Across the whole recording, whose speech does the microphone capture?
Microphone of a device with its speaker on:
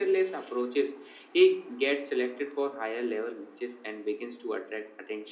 echo only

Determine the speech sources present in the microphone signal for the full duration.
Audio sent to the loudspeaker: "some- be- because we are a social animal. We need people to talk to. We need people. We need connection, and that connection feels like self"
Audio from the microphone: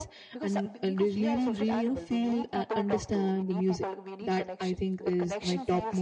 both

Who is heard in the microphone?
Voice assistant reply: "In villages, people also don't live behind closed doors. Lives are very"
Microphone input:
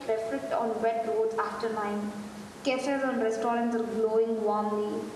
user only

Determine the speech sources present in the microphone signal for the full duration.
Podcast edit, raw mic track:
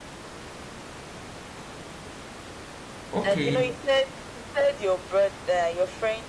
both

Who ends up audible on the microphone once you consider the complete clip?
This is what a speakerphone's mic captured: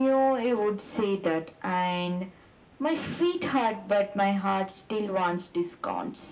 echo only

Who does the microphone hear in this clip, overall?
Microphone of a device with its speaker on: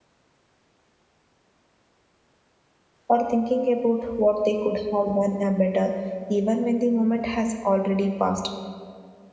user only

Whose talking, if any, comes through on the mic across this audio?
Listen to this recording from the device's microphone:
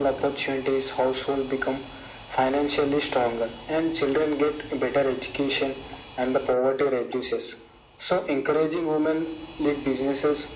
echo only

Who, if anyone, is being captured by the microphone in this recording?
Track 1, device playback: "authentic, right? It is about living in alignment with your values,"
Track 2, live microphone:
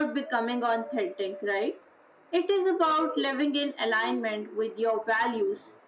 echo only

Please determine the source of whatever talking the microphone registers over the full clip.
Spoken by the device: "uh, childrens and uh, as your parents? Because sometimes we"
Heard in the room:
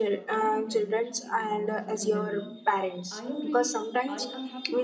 both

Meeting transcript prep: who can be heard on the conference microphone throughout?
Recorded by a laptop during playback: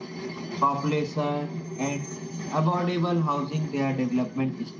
echo only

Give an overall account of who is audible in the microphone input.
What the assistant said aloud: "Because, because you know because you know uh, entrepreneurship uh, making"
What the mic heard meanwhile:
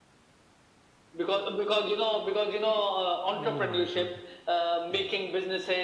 both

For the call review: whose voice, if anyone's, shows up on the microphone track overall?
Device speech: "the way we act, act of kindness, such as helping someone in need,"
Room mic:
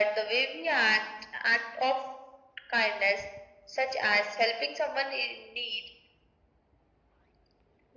echo only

